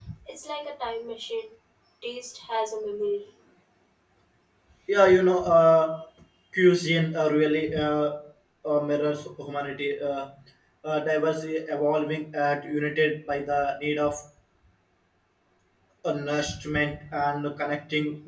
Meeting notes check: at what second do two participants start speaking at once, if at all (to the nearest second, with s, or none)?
none